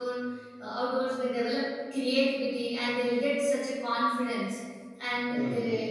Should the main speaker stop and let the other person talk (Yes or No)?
No